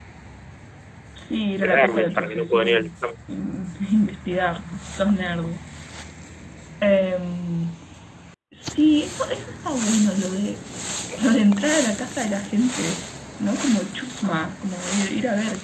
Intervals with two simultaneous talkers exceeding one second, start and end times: 1.6-2.9

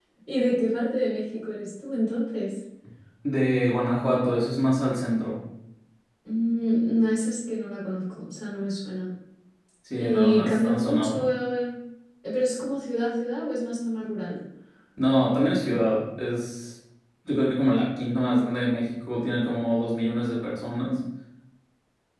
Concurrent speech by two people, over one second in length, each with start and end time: 10.0-11.2

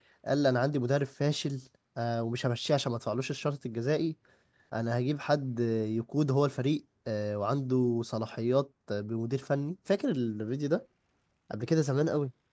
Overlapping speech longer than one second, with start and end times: none

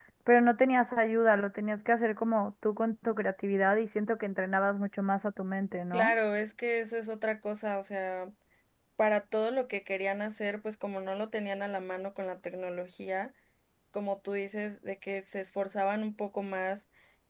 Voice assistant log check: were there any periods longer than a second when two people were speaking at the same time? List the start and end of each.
none

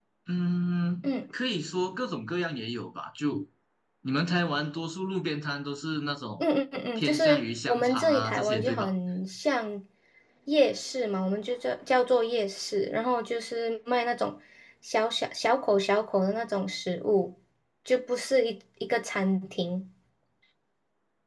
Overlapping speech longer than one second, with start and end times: 7.0-8.9

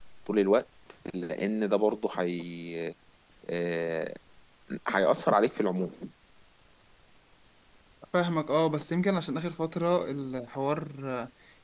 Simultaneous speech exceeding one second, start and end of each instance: none

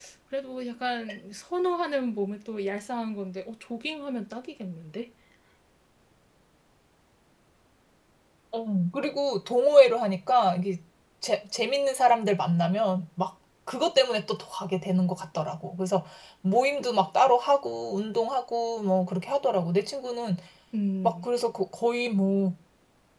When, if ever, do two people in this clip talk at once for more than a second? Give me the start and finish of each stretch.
none

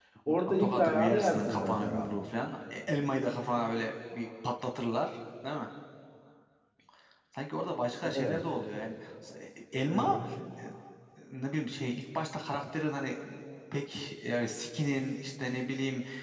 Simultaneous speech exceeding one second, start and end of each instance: 0.6-2.1

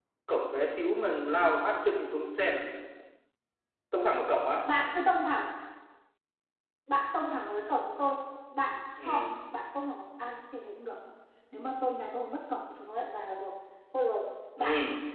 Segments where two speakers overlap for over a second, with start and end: none

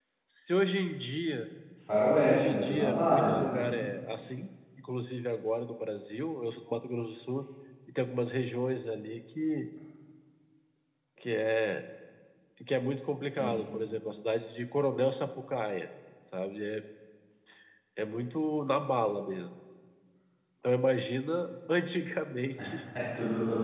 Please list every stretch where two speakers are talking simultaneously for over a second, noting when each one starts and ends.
2.2-3.7

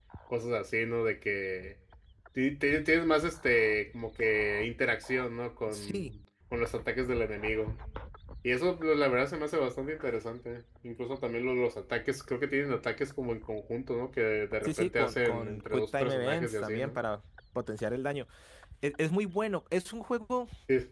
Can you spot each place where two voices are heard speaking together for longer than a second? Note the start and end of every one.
14.6-17.0

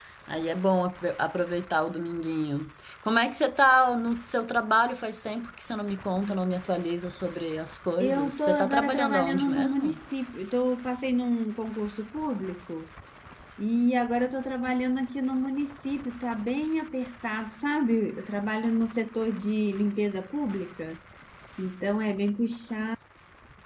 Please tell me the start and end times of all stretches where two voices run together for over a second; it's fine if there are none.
8.0-10.0

